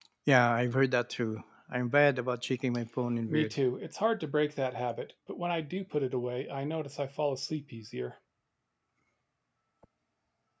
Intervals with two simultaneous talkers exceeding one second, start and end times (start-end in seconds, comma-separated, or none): none